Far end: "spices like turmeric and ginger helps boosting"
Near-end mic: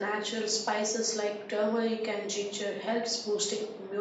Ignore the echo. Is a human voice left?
No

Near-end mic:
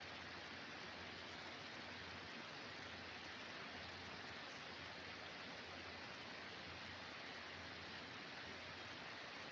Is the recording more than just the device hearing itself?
No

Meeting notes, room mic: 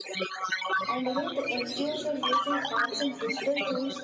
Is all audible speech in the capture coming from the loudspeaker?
No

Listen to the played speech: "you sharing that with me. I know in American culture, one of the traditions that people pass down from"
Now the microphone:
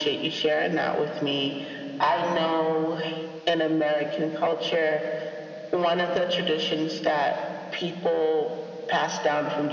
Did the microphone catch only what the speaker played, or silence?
Yes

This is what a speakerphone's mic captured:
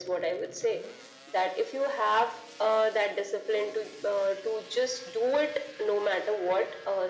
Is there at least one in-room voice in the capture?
No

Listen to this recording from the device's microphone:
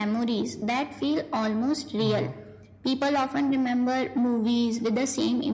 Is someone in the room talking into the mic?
Yes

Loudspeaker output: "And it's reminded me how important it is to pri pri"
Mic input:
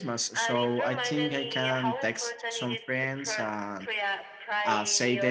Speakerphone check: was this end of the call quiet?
No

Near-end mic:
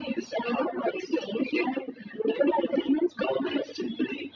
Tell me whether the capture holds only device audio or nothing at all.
Yes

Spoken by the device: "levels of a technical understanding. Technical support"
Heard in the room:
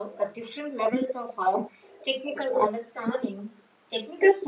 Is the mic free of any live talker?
Yes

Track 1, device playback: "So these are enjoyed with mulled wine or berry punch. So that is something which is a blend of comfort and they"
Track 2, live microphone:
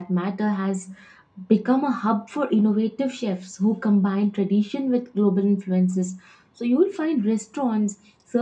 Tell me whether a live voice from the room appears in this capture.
Yes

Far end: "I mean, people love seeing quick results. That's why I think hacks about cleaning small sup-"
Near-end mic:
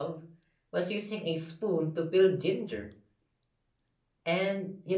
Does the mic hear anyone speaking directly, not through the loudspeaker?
Yes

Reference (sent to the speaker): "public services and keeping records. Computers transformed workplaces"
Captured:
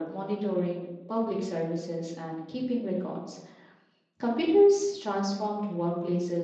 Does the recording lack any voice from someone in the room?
Yes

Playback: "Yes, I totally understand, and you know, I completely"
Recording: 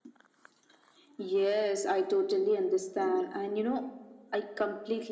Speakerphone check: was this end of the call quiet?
Yes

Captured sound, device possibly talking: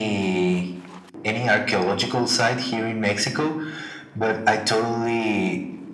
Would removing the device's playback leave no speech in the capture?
Yes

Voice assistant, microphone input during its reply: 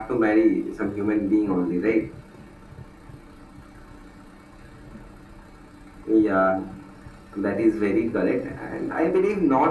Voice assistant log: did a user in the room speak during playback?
No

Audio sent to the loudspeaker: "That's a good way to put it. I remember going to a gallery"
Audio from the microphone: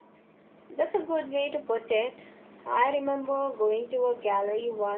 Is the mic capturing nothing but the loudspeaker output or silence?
Yes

